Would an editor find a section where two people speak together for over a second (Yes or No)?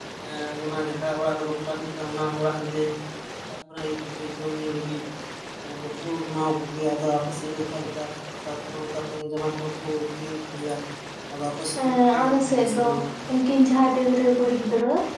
Yes